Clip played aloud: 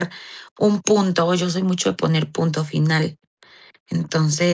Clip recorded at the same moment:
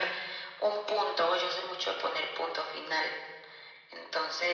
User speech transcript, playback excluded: none

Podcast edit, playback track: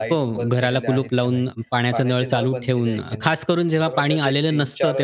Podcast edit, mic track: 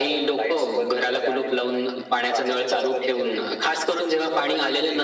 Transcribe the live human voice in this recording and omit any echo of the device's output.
none

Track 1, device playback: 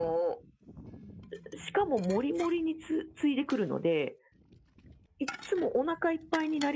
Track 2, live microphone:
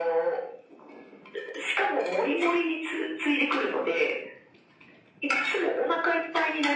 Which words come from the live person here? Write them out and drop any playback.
none

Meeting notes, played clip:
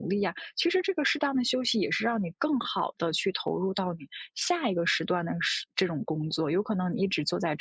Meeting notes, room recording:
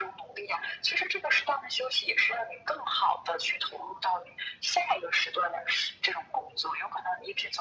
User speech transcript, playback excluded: none

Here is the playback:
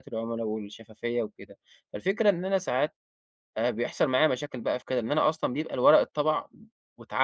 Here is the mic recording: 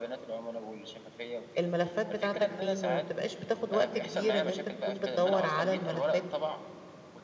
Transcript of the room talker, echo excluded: الملفات بتاعتك فين وما بتبقاش بتاخد وقت كبير ان انت تكون بتدور على الملفات

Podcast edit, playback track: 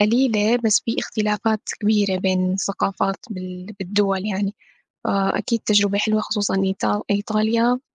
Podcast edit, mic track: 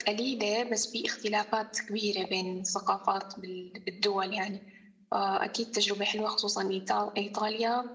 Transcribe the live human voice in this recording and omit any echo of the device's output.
none

